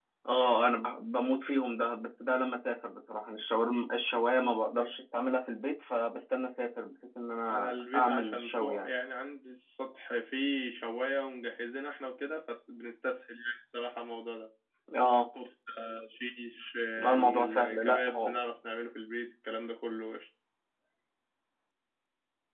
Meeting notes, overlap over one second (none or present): present